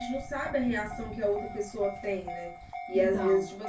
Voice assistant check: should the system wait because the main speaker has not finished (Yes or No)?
Yes